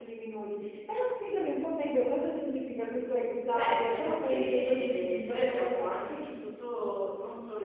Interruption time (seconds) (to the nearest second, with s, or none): 4 s